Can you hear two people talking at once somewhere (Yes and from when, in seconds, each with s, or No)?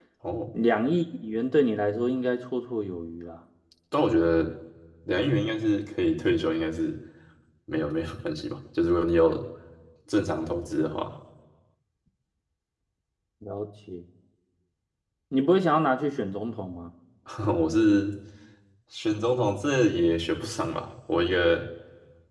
No